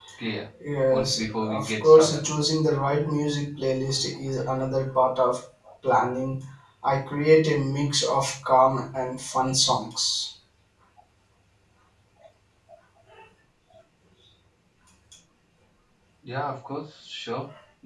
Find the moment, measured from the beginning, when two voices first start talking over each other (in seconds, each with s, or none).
0.9 s